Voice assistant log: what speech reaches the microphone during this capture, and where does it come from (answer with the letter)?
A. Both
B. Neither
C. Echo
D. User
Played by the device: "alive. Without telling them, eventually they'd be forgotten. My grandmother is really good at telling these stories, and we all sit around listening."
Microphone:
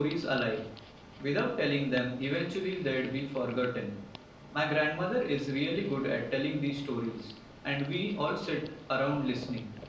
C